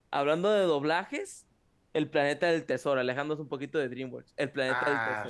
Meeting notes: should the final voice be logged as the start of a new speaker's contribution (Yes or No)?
Yes